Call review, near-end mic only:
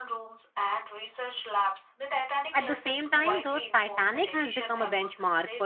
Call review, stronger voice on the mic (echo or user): user